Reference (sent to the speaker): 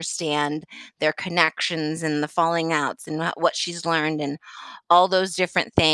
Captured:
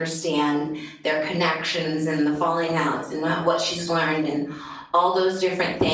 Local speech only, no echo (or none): none